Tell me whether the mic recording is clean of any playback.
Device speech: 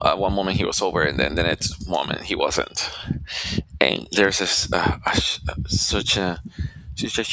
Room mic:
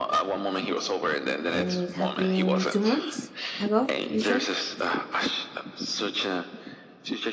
No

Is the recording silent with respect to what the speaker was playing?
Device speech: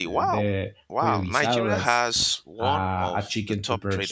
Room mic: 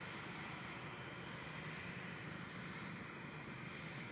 Yes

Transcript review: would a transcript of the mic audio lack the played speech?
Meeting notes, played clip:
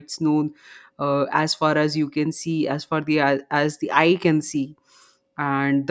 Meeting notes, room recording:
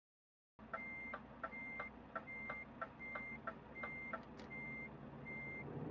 Yes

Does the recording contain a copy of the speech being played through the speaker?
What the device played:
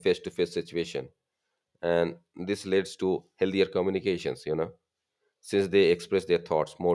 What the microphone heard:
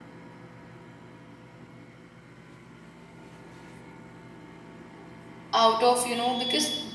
No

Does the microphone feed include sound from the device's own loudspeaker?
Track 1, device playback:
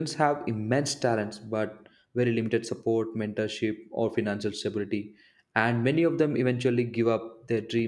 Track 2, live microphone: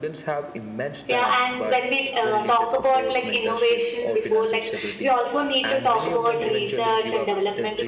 Yes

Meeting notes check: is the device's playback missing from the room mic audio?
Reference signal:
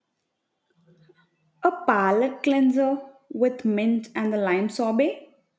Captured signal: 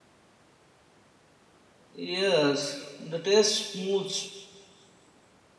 Yes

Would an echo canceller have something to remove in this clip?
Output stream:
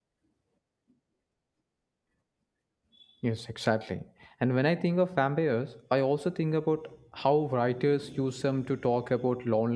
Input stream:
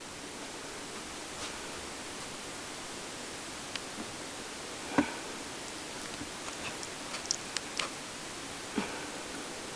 No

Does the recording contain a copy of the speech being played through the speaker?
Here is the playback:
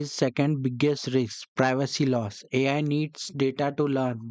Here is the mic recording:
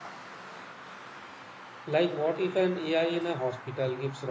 No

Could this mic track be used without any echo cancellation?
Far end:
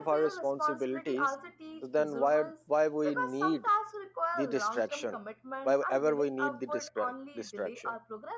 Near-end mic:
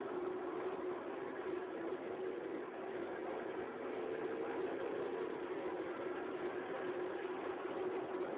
Yes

